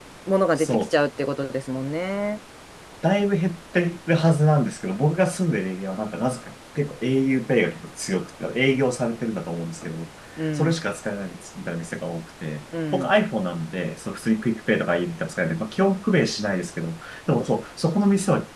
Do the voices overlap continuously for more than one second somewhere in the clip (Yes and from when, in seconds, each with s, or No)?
No